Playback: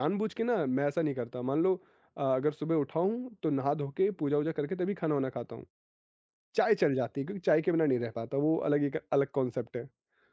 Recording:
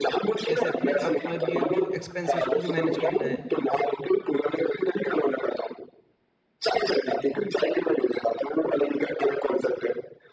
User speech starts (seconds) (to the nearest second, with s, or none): 0 s